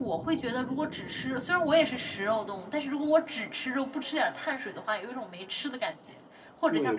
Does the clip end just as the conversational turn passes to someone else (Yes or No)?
Yes